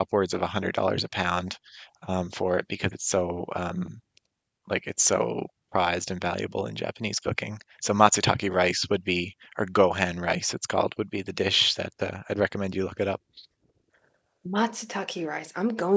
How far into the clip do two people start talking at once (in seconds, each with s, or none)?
none